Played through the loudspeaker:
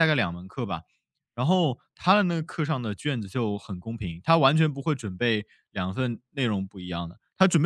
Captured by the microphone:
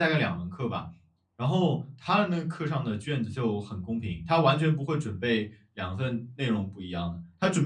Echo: present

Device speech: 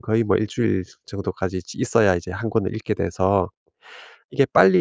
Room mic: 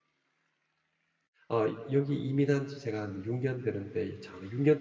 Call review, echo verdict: none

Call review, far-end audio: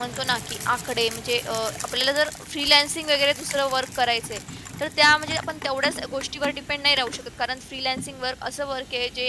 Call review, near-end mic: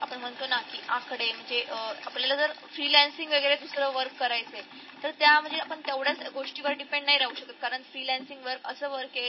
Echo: present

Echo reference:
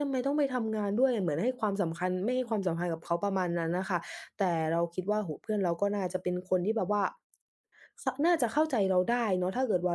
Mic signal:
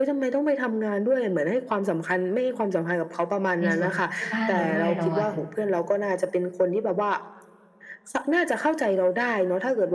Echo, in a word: present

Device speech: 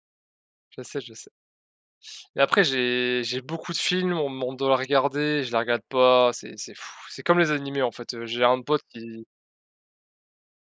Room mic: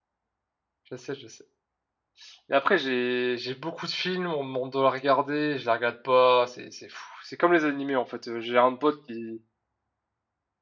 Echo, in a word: present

